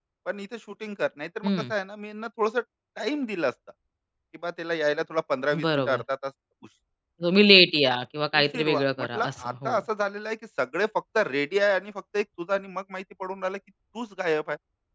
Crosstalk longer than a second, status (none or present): present